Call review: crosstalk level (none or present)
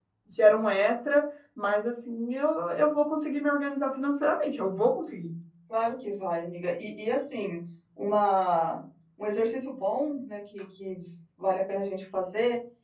none